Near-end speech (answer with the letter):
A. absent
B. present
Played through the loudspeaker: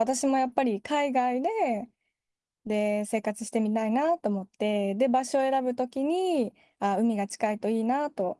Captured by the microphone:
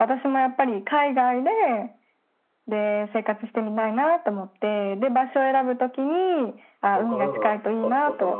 B